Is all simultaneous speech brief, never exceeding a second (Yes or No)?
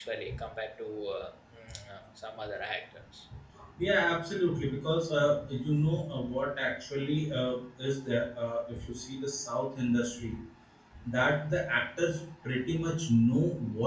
Yes